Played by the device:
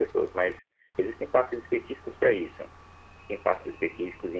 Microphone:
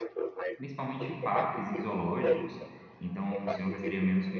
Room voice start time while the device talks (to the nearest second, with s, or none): 1 s